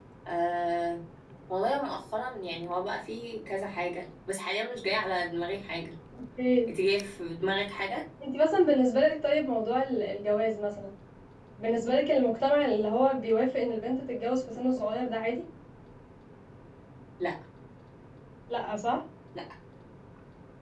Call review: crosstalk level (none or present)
none